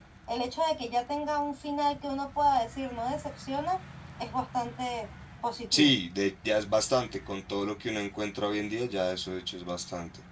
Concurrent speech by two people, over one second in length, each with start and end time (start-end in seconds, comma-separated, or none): none